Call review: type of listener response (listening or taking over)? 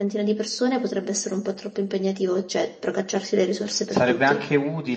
taking over